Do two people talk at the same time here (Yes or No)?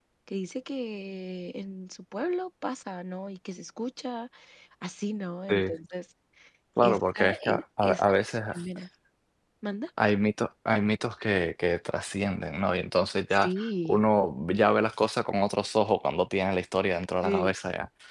Yes